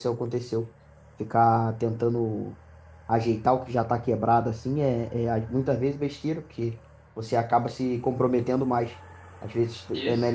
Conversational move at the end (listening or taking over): listening